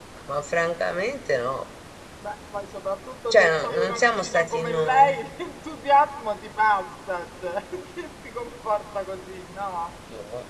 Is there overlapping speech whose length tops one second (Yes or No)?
Yes